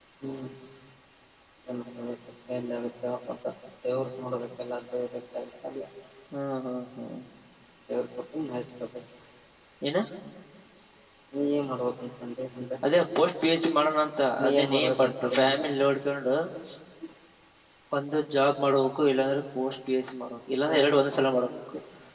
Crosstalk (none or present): present